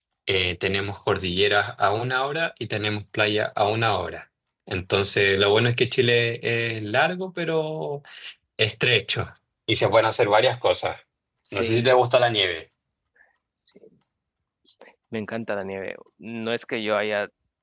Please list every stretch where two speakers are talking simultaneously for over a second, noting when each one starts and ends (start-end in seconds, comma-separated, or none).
none